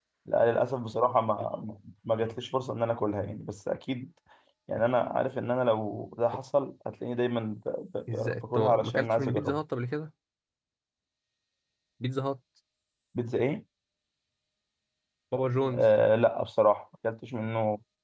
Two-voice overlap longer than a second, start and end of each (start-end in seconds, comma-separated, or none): 8.1-9.6